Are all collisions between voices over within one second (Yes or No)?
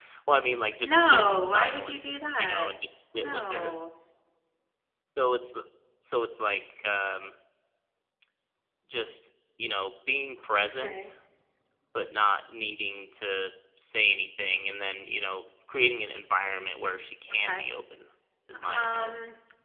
No